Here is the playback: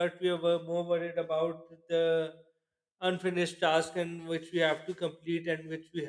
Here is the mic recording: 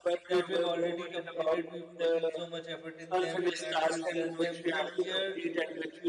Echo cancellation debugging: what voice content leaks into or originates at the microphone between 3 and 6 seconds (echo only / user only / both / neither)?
both